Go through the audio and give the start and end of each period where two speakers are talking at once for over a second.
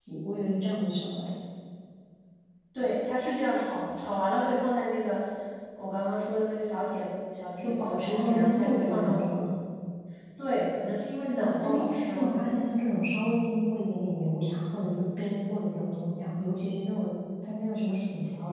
7.6-9.4, 11.4-12.7

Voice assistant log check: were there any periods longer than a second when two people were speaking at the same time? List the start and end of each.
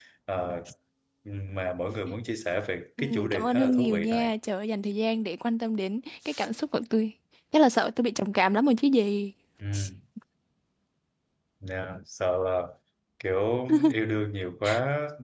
3.0-4.3

